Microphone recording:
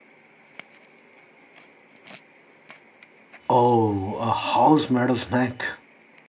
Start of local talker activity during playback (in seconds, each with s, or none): 3.5 s